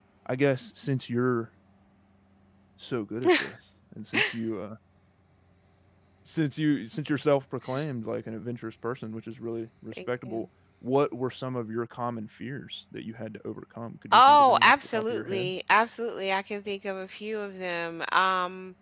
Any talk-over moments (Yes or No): Yes